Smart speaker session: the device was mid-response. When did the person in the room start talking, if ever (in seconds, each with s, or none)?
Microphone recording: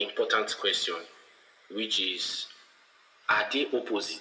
none